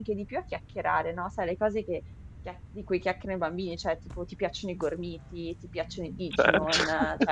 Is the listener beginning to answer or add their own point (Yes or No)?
No